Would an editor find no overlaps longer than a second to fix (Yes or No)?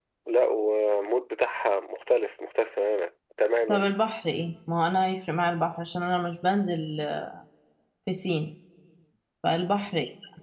Yes